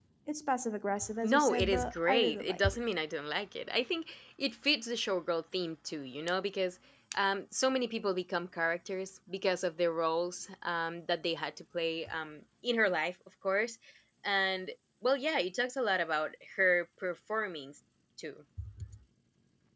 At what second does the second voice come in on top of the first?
1.2 s

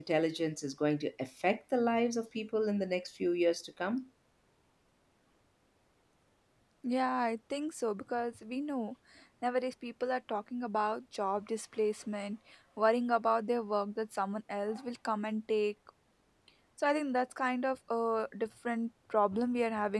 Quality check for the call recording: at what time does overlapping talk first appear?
none

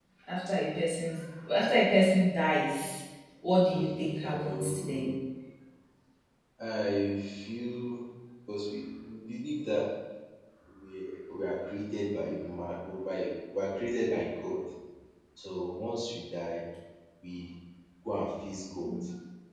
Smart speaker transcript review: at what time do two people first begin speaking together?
3.7 s

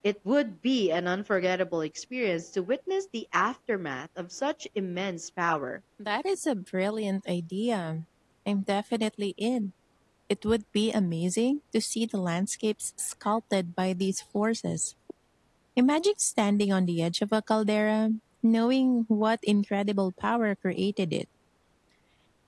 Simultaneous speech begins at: none

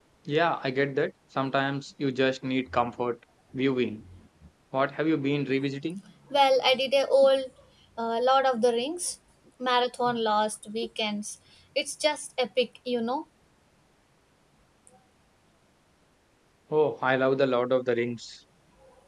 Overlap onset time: none

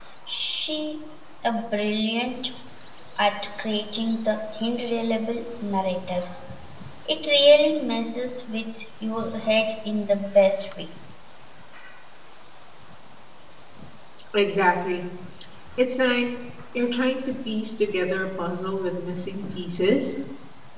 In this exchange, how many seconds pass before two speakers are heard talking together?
none

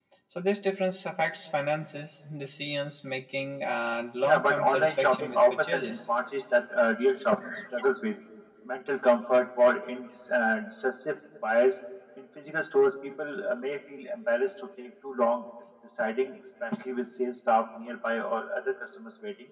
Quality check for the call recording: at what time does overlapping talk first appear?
4.2 s

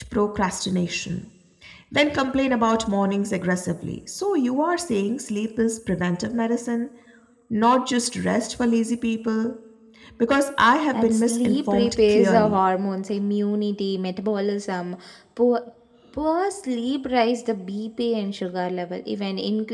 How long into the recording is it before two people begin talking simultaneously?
10.9 s

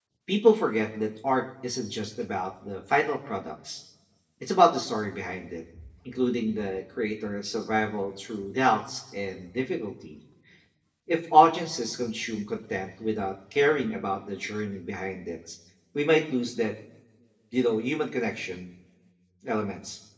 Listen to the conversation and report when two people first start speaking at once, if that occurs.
none

